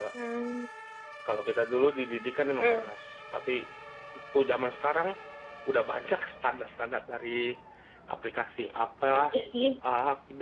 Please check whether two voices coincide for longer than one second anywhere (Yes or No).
No